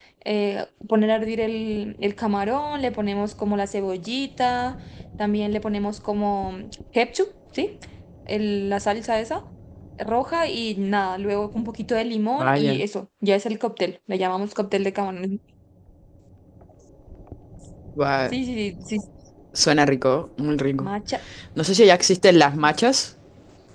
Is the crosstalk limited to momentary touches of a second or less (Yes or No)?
Yes